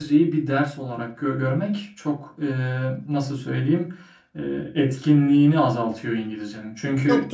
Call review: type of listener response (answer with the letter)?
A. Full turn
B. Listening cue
B